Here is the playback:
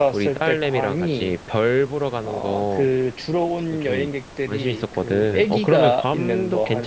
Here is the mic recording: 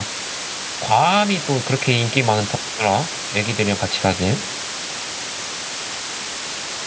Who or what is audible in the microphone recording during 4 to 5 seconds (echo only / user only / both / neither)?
user only